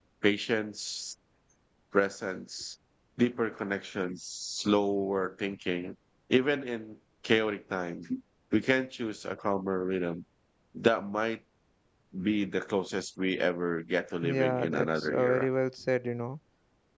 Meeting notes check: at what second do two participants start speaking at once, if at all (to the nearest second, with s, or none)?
14 s